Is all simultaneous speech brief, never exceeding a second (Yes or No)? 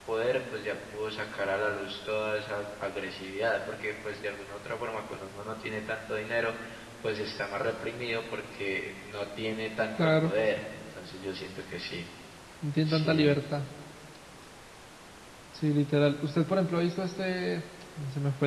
Yes